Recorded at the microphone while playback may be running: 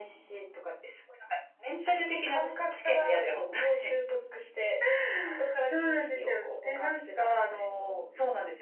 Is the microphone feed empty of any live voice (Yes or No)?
Yes